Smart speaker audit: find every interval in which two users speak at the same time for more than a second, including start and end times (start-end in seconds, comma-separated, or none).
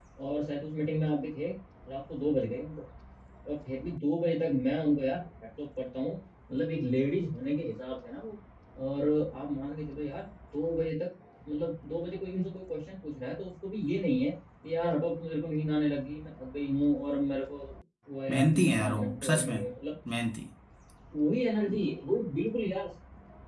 18.3-19.6